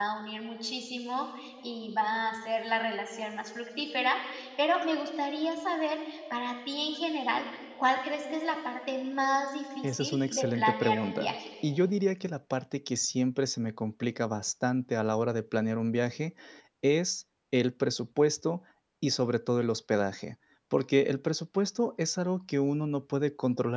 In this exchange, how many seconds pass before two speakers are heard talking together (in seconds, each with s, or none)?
9.8 s